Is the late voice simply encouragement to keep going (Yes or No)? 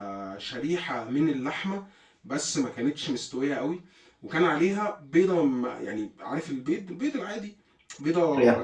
Yes